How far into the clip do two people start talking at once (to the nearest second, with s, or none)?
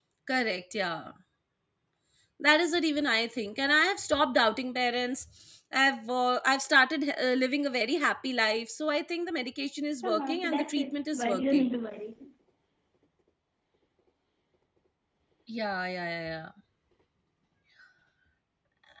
10 s